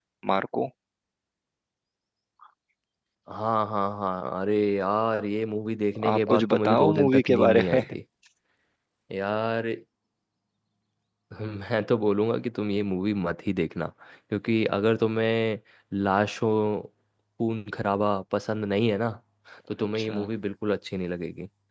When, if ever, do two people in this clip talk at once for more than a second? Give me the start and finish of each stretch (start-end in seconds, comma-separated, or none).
6.1-7.8